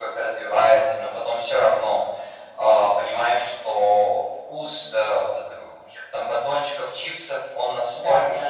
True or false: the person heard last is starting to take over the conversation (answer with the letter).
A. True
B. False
B